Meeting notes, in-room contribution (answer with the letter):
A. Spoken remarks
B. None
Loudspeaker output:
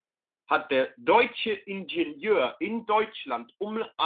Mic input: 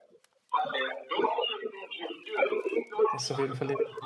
A